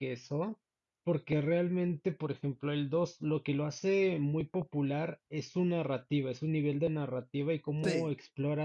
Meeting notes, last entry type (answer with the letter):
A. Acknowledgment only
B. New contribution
A